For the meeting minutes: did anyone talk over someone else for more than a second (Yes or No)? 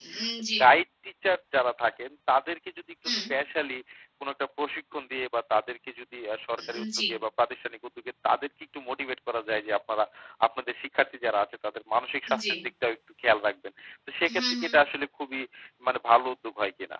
No